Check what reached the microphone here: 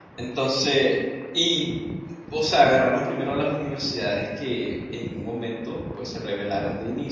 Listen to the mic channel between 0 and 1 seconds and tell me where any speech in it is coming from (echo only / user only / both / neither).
user only